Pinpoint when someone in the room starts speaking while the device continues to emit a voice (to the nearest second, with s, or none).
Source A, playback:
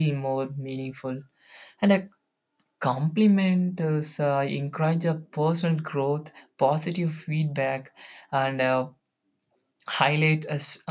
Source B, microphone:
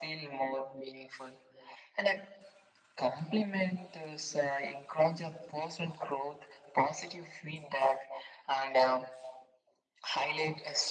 none